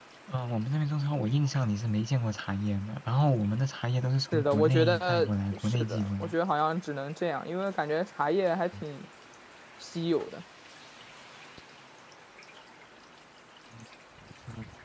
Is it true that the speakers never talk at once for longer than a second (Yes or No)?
No